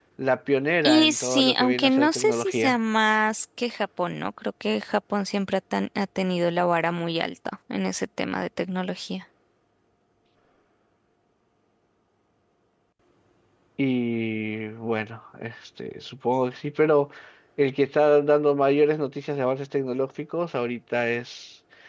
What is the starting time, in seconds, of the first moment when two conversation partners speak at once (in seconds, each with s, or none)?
0.8 s